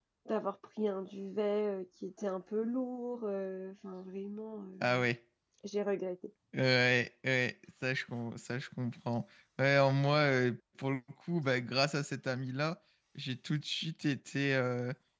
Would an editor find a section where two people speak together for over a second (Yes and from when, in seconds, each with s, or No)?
No